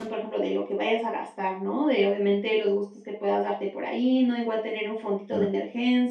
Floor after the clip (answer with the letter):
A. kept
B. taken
A